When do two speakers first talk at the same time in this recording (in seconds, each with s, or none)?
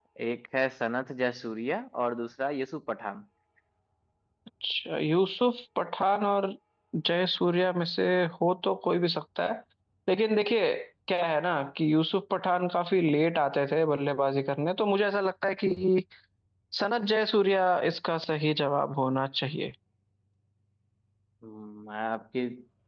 none